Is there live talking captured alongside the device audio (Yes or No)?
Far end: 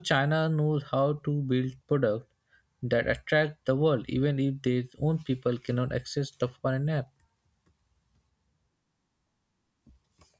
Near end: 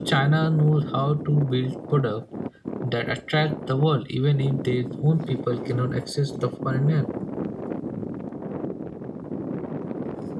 No